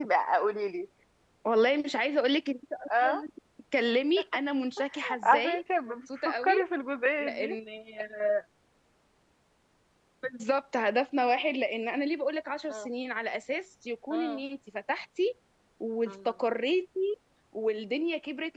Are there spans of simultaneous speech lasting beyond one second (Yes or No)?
Yes